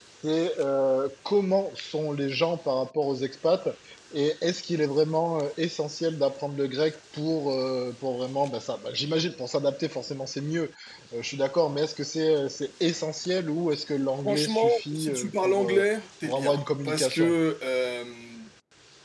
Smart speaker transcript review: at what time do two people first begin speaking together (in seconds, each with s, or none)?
14.2 s